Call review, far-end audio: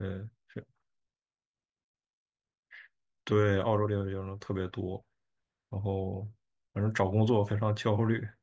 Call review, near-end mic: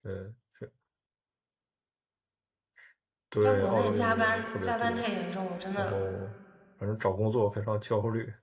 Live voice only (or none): 在国内加班加班太严重了，我真的